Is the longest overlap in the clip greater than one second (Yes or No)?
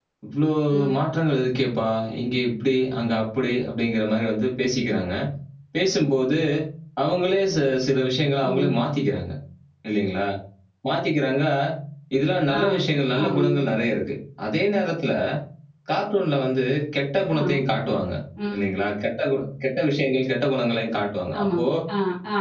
No